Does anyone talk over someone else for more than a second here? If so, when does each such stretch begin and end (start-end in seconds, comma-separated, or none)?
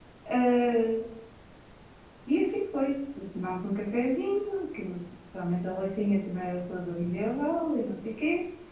none